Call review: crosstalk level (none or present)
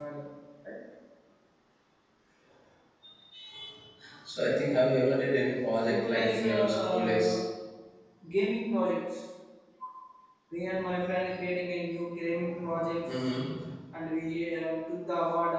present